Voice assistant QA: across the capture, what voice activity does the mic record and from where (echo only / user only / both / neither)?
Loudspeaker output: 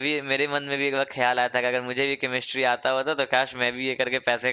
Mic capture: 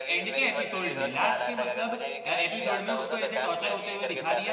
both